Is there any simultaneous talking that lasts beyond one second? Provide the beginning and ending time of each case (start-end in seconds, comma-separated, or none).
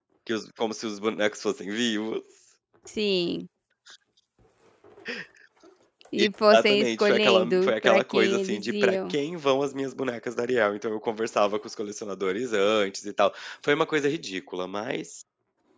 6.5-9.1